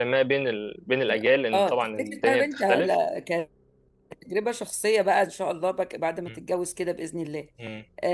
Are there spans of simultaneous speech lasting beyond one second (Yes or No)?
Yes